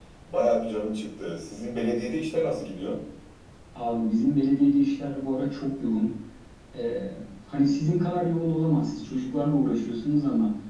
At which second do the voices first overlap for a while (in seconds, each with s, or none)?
none